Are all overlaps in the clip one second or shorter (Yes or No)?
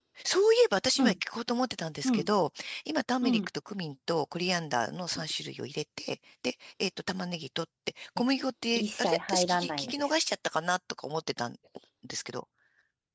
No